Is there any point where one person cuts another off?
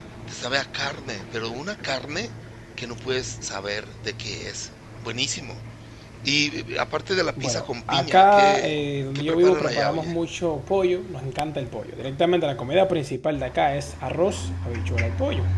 Yes, from 7.4 s

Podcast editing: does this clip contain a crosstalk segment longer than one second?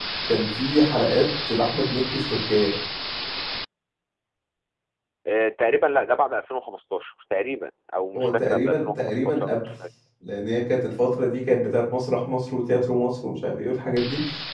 Yes, from 8.2 s

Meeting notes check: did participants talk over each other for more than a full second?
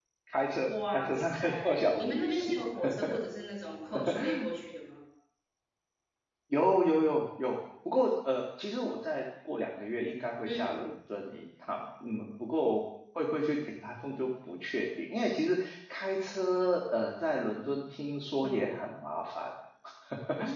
Yes, from 0.7 s

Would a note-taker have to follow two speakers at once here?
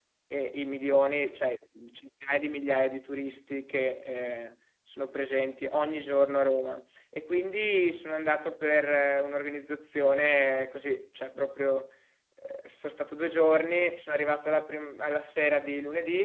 No

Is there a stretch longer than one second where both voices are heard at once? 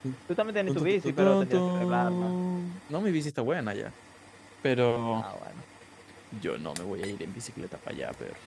Yes, from 0.7 s

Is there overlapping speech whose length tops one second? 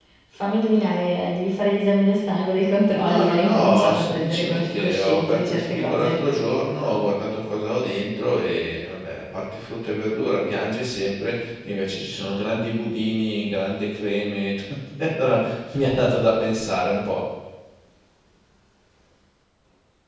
Yes, from 2.9 s

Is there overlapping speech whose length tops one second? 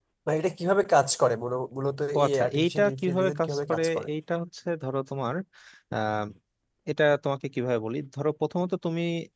Yes, from 2.1 s

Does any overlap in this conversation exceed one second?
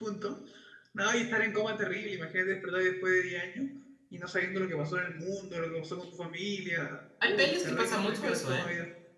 Yes, from 7.2 s

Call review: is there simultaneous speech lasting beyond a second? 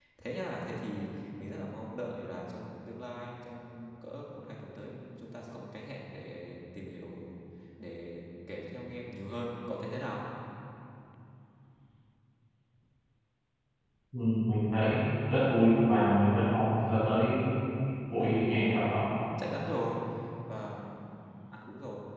No

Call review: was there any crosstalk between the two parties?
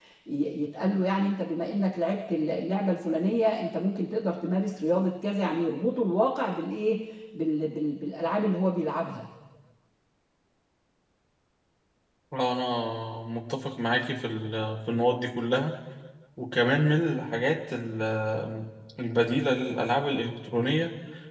No

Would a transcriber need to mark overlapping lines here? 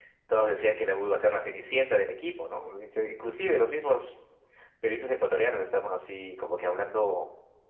No

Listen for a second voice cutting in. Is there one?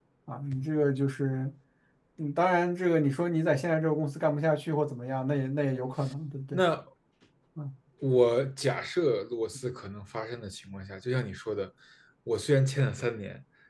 No

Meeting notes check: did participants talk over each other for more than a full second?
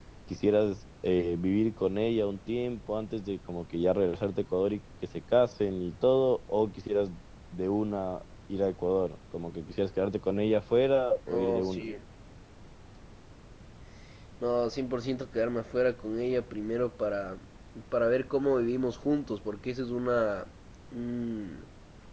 No

